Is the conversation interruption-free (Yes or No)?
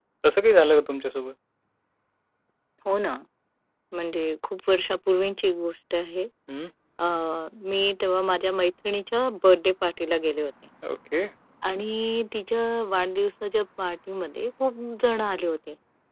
Yes